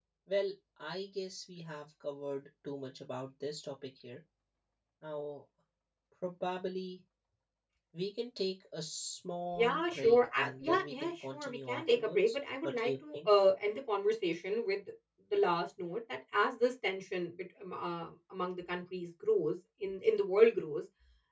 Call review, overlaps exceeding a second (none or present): present